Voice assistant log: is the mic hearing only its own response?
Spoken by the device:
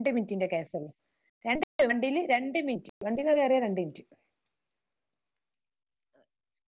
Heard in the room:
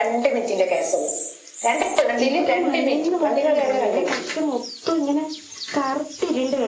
No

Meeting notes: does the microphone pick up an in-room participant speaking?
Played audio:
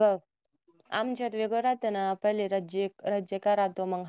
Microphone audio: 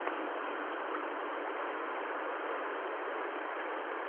No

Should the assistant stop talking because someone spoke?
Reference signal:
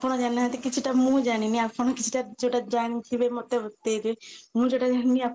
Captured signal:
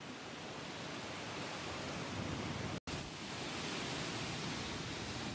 No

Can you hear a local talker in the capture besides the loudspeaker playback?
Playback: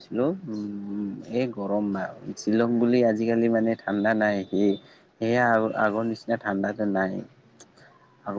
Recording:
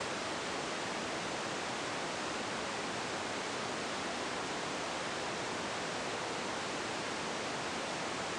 No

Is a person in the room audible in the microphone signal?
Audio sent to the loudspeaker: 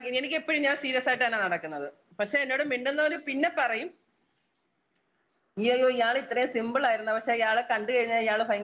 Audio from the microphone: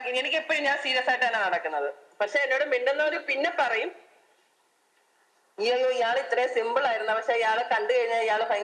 No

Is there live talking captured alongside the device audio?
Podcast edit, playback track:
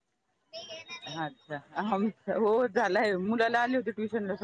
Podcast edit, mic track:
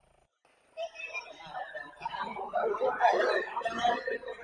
No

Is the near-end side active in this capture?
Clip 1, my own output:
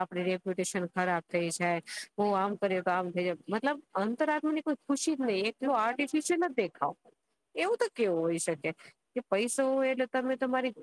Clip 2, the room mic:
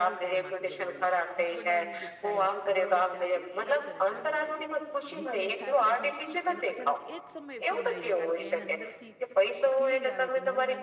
Yes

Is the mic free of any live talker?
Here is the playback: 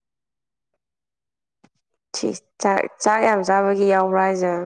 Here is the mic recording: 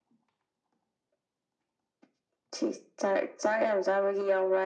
Yes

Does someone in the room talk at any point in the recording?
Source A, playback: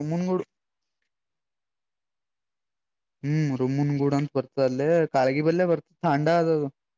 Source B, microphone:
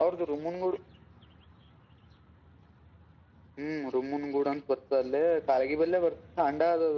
No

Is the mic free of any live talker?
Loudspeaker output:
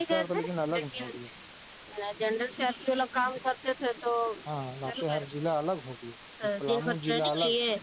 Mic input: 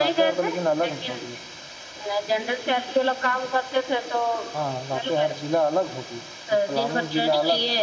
Yes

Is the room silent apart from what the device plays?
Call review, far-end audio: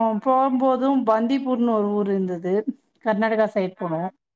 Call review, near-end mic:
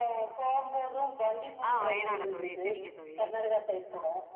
No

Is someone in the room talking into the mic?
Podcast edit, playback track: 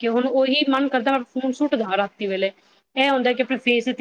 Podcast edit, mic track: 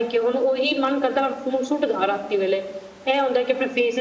No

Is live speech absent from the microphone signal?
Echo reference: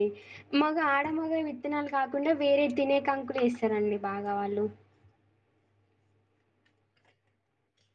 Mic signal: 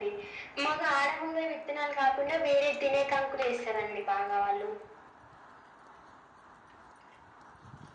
Yes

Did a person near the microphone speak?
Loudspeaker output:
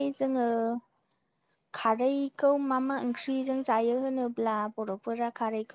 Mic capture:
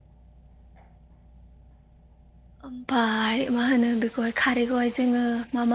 Yes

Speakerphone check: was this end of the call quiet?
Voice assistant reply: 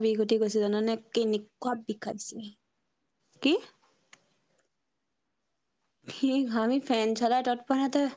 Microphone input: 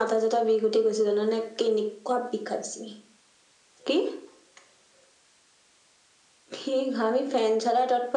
Yes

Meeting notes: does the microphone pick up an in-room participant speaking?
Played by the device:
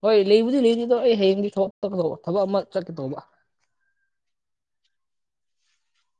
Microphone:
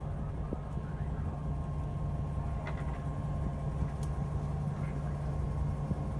No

